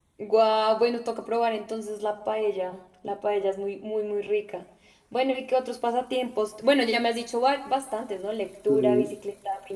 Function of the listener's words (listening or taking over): listening